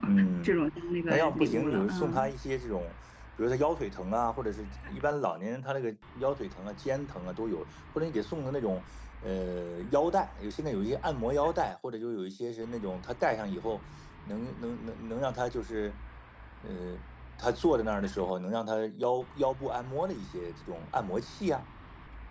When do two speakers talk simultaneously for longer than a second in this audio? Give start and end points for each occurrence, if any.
1.1-2.3

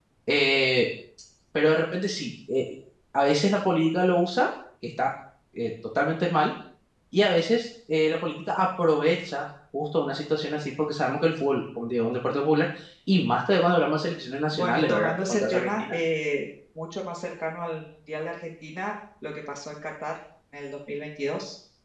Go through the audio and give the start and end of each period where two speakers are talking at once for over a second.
14.5-15.9

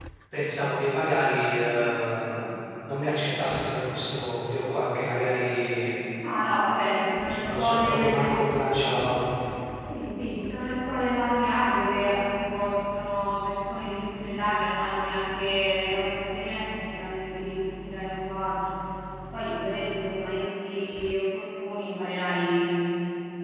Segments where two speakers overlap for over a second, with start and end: 6.7-8.3

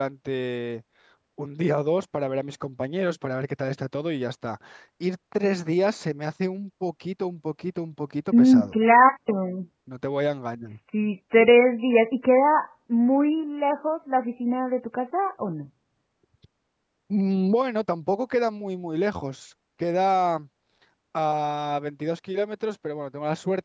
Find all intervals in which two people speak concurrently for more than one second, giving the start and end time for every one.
none

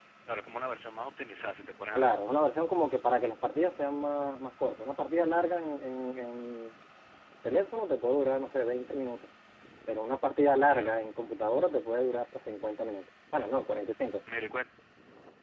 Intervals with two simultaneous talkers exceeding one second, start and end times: none

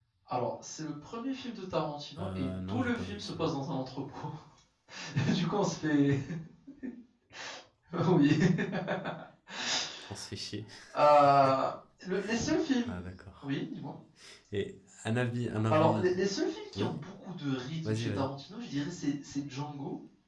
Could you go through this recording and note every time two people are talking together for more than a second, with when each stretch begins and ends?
2.2-3.5

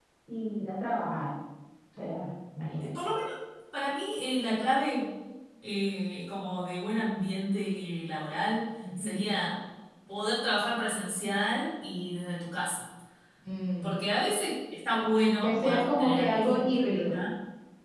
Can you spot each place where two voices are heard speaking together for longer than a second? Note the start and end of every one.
15.4-17.2

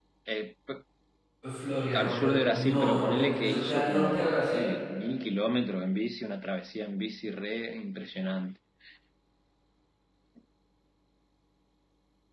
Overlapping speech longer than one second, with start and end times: 1.9-4.7

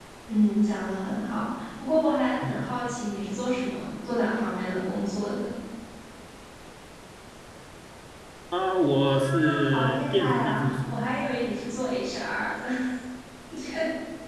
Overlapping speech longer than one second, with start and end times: 9.1-11.0

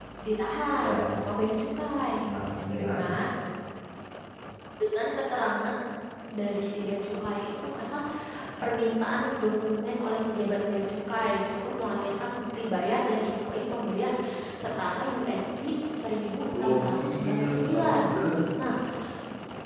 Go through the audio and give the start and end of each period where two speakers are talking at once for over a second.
16.5-17.9

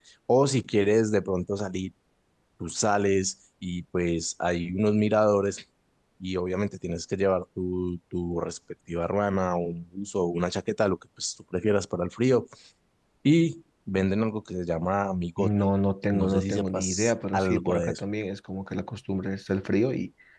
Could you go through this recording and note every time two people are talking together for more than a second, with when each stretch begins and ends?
16.1-18.0

